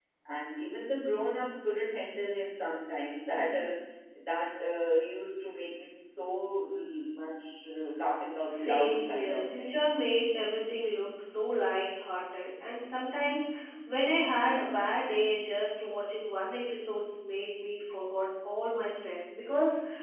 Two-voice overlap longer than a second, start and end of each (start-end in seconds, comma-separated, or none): 8.5-9.8